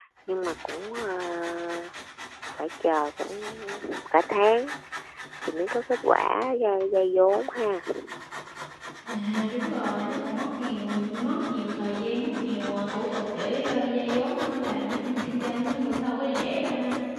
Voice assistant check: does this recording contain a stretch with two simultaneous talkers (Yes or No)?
No